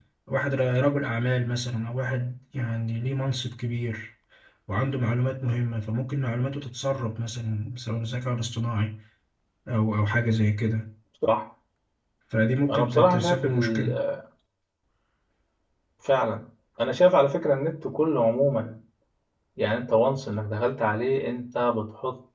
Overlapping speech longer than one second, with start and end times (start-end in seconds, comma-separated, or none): 12.7-13.9